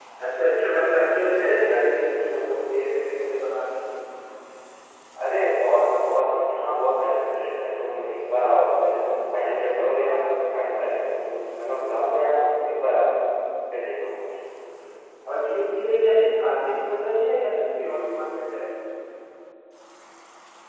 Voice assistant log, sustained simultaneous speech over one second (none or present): none